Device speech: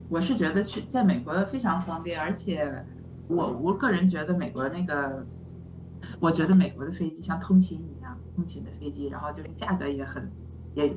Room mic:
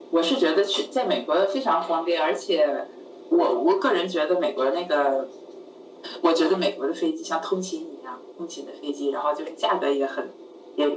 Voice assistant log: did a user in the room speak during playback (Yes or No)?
No